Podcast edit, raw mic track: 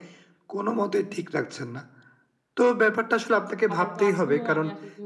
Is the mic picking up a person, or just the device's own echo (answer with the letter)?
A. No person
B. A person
B